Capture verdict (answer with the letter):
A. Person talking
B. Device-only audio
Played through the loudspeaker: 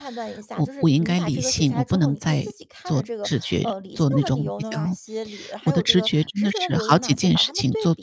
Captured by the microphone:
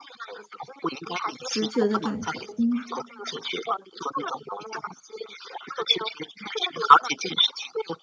A